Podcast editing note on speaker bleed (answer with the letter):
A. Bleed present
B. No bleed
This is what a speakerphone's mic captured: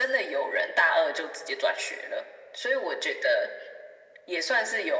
A